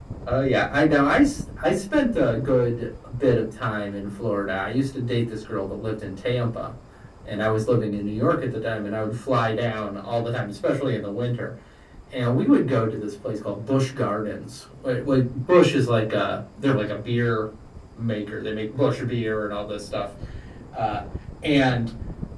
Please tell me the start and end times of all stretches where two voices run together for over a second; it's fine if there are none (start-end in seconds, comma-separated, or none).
none